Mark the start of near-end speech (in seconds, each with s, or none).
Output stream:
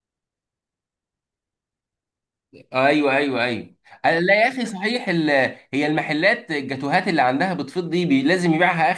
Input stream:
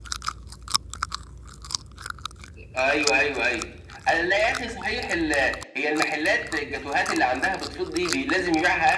none